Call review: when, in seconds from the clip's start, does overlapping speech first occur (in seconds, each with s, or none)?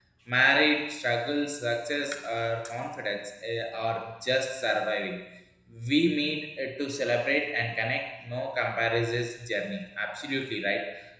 none